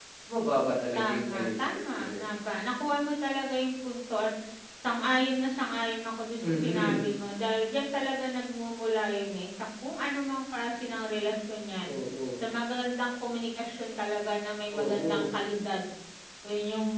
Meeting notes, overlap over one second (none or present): present